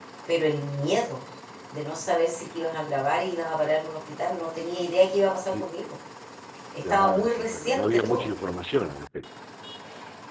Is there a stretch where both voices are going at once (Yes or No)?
Yes